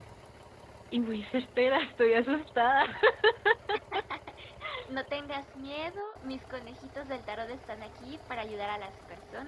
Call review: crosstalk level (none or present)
none